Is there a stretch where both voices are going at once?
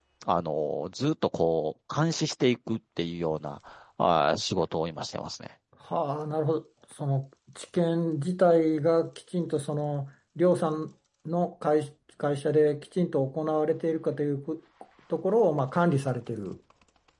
No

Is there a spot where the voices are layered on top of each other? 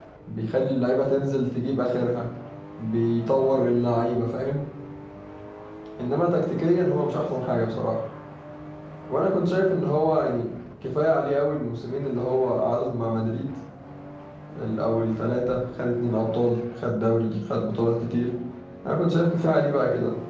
No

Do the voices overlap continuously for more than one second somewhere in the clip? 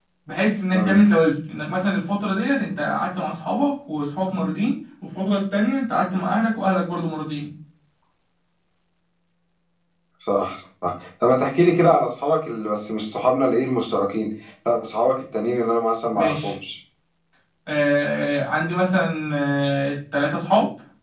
No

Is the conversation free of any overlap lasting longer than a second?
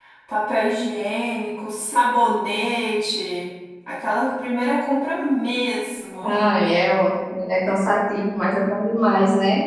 Yes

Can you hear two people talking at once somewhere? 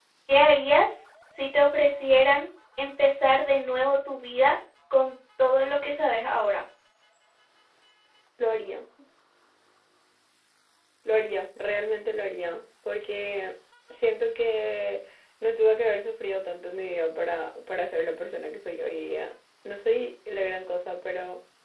No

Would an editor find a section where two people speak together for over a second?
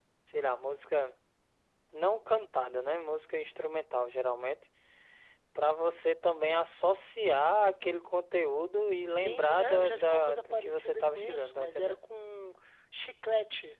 Yes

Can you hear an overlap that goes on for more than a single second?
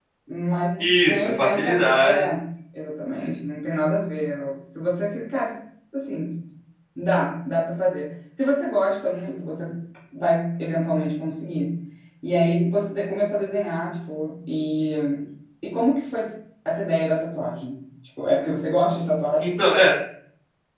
Yes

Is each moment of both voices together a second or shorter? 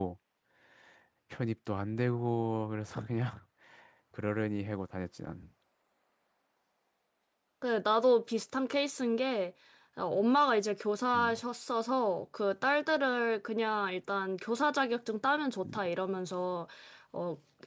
Yes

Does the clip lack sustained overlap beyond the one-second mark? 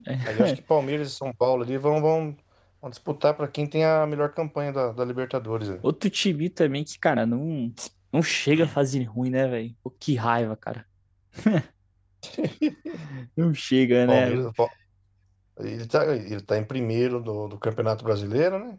Yes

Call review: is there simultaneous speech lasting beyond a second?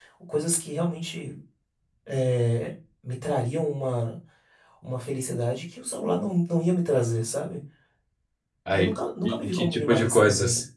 Yes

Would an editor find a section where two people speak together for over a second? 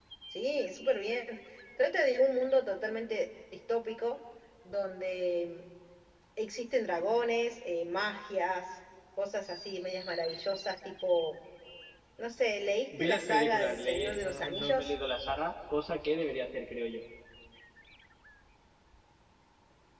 Yes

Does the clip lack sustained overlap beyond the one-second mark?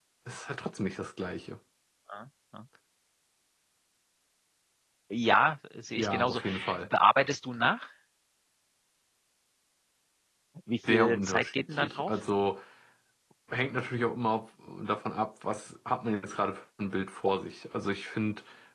No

